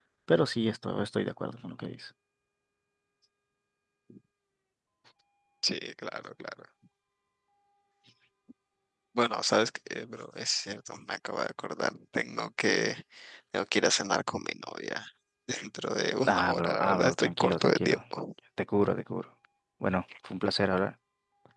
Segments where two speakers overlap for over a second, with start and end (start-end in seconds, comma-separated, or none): 16.2-18.0